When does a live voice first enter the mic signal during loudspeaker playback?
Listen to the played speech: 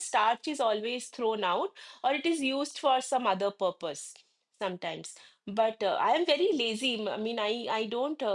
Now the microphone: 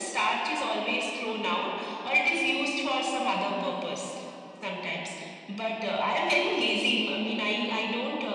none

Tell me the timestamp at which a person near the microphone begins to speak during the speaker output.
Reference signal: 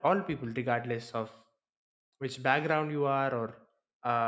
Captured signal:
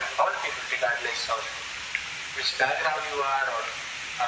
none

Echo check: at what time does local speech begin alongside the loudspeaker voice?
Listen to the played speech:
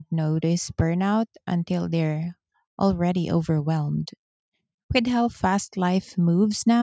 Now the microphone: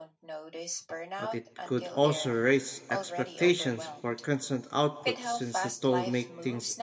1.2 s

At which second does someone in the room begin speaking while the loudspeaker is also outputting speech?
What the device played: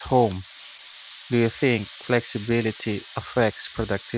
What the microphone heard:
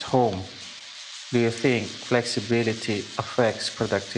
none

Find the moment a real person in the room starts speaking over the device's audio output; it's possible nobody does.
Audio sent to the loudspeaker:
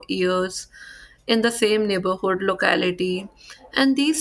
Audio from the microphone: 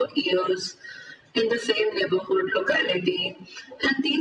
none

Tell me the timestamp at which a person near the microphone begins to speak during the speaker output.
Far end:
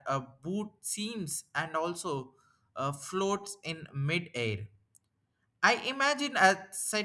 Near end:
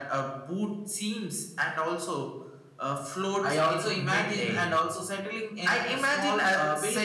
3.4 s

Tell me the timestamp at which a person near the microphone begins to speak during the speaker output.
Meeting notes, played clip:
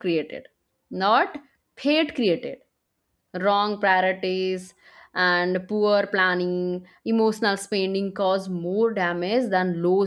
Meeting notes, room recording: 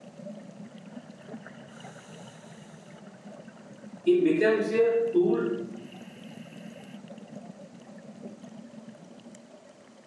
4.0 s

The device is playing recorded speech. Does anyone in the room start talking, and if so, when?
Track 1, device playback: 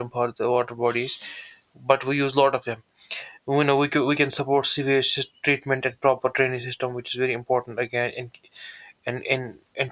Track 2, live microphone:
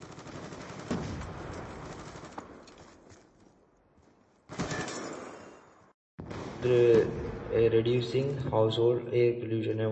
6.6 s

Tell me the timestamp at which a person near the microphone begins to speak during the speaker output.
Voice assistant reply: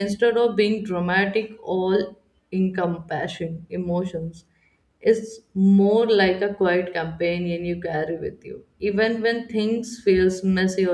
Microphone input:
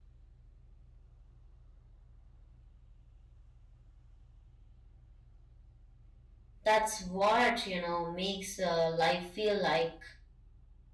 6.7 s

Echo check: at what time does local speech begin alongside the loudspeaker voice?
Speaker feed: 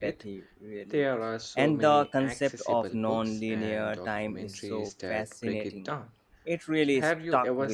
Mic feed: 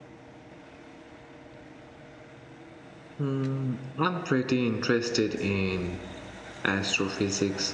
3.2 s

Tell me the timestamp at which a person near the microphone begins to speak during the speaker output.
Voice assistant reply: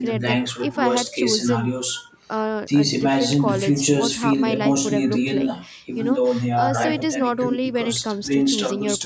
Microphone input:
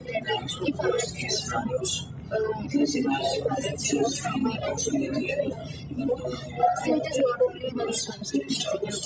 none

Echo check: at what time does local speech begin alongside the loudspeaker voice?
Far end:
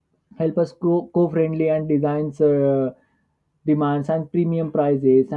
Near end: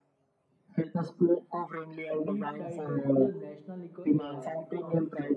2.2 s

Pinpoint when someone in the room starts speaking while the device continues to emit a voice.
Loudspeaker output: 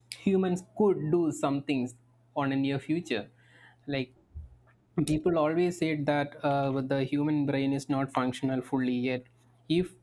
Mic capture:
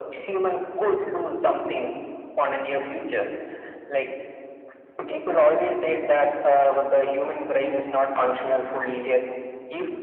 none

